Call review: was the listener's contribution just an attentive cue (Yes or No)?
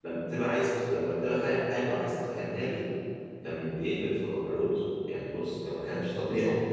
No